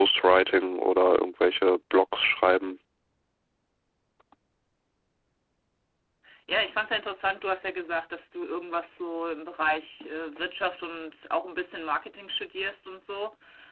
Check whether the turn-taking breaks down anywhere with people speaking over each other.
No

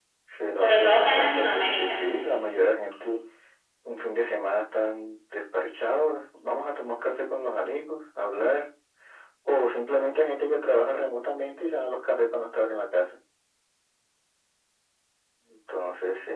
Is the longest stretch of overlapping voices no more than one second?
No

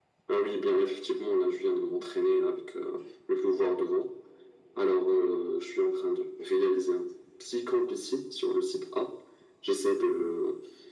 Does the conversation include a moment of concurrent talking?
No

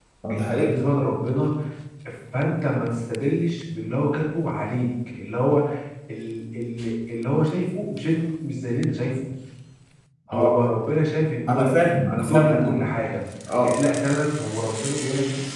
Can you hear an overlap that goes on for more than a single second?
Yes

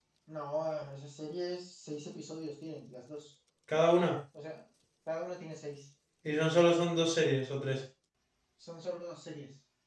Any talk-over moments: No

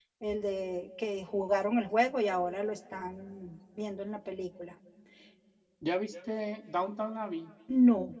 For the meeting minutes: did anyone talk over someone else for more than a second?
No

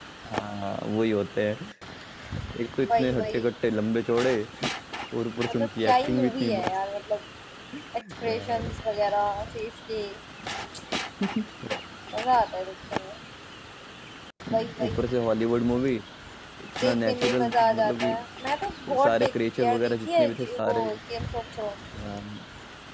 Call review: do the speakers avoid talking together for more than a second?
No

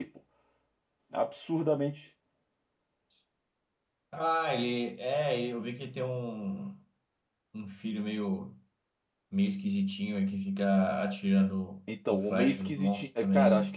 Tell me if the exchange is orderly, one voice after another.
No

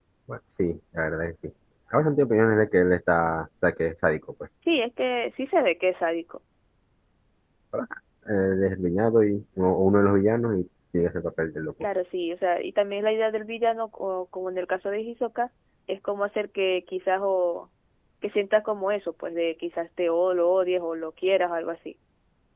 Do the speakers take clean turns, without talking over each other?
Yes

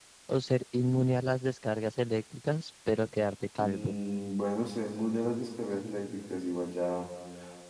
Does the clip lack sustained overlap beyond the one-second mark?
Yes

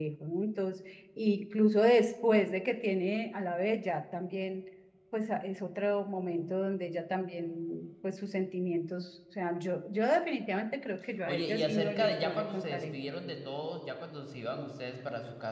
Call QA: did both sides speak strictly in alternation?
No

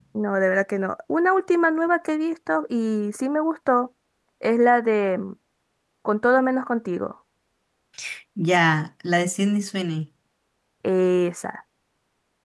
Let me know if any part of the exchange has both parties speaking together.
No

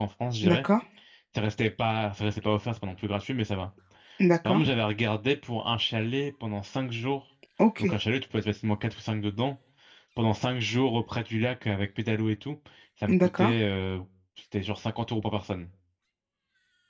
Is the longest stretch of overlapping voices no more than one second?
Yes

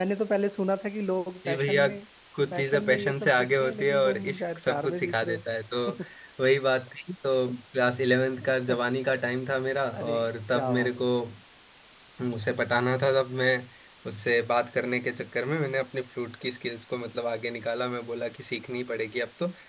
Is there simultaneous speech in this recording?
Yes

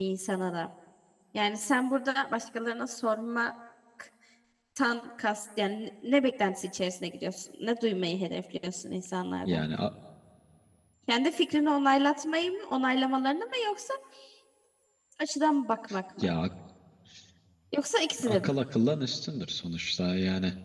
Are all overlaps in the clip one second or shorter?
Yes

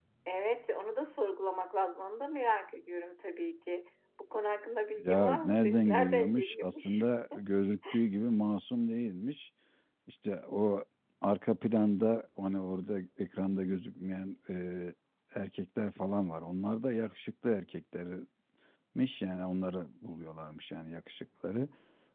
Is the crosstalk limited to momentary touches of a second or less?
No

